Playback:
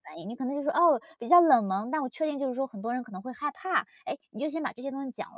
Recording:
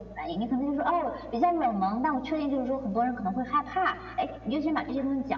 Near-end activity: none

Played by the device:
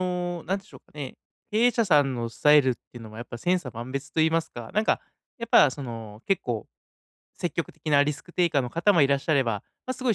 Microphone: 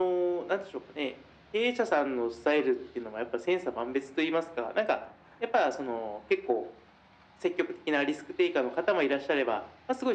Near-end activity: none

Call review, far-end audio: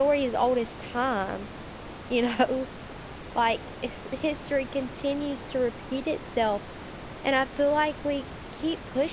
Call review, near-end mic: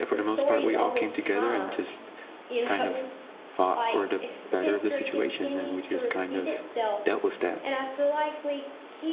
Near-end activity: present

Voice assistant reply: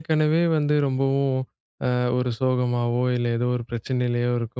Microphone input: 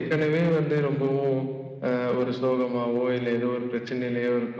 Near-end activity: none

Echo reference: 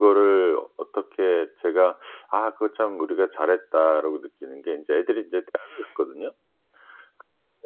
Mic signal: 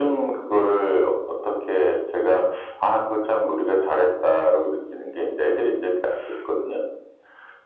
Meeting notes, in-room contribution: none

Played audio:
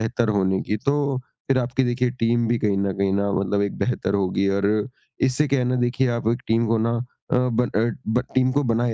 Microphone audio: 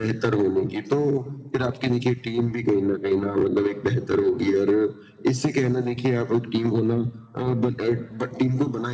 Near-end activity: none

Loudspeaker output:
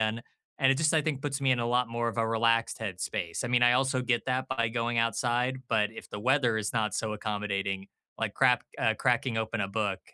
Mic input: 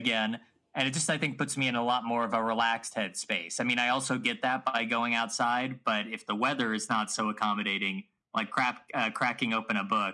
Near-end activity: none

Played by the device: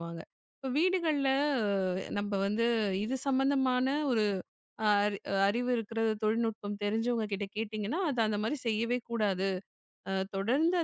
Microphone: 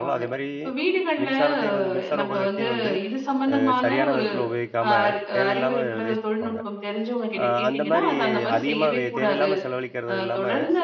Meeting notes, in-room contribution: present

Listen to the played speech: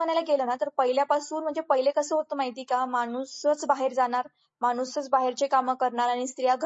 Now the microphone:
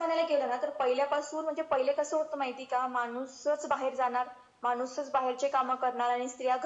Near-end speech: none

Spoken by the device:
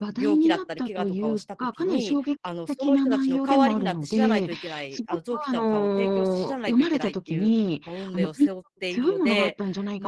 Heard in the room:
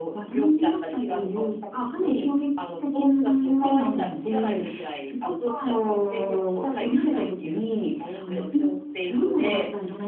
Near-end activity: none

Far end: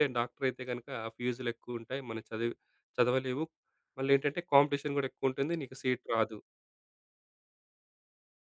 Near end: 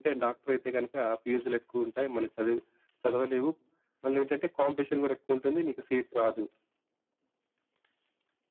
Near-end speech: none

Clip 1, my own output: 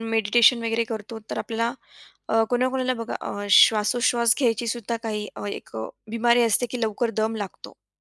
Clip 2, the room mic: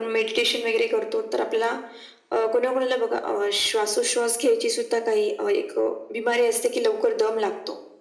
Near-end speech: none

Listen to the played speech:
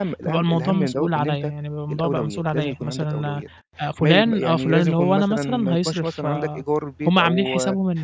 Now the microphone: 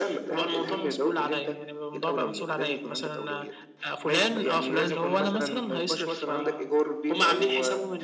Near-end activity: none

